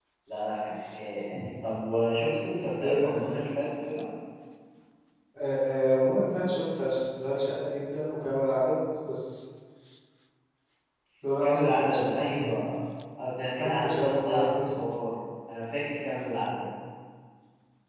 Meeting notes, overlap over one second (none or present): present